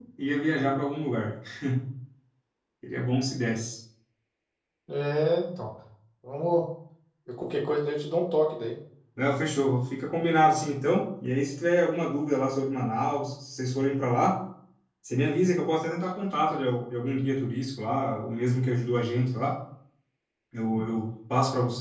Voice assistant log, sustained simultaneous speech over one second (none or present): none